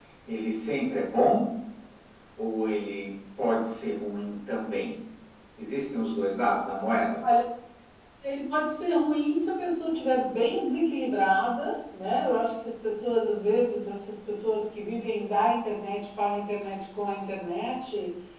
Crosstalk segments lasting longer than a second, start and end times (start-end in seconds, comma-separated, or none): none